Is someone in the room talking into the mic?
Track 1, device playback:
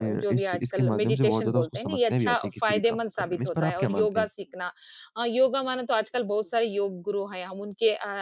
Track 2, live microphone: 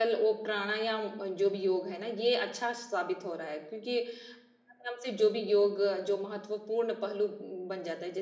Yes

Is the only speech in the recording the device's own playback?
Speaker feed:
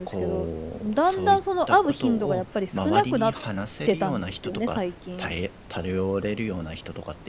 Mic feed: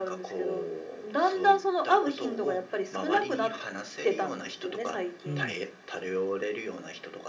No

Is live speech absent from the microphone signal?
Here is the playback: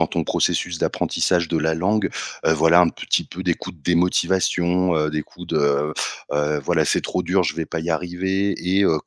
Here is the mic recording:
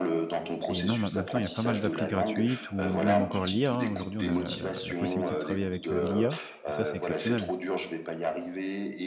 No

